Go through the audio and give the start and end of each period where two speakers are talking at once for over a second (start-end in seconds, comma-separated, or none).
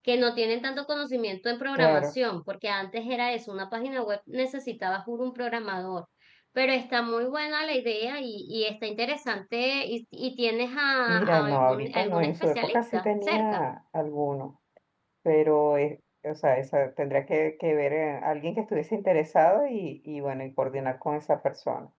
11.1-13.6